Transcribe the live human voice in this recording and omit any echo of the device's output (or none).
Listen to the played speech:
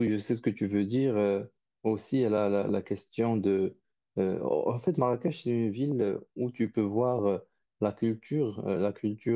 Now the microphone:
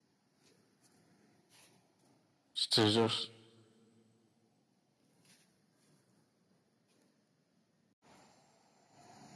Je te jure.